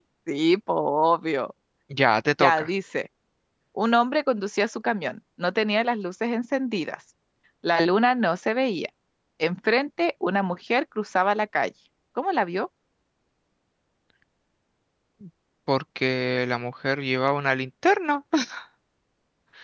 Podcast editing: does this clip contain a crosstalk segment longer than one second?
No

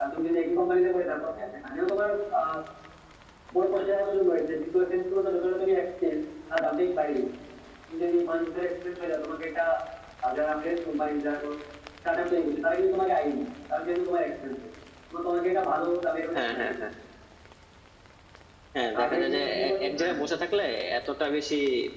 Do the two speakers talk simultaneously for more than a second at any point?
Yes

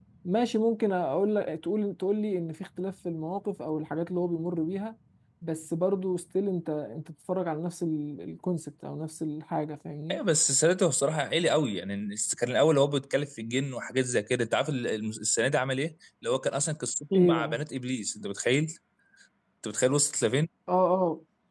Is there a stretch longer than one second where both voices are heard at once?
No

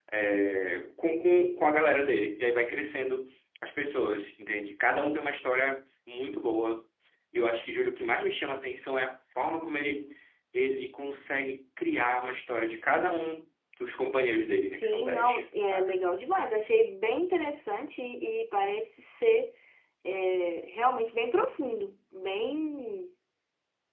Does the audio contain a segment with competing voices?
Yes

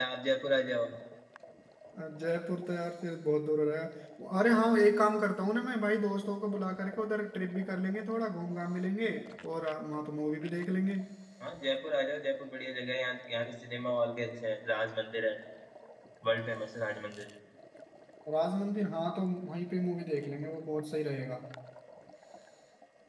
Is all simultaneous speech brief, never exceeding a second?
Yes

